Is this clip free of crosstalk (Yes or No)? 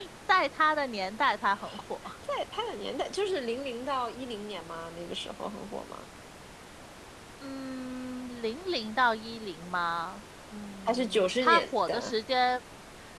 No